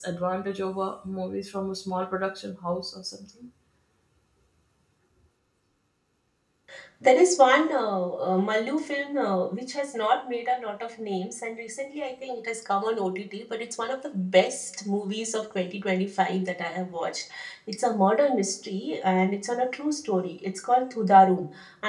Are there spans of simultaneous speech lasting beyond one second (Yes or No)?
No